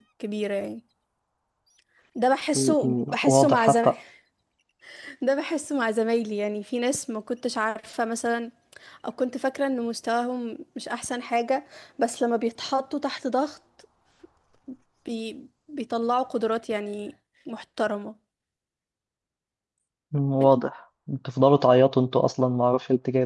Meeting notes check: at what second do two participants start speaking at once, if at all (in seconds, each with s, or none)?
2.5 s